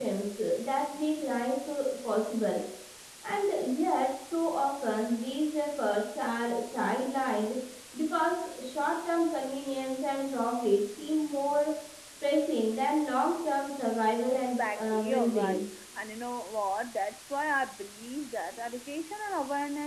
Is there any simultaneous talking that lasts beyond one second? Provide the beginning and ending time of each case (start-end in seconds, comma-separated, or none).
14.3-15.6